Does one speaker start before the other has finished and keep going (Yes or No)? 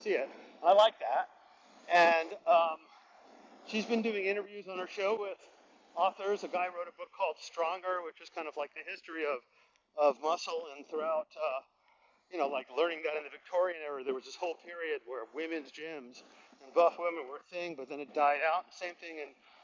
No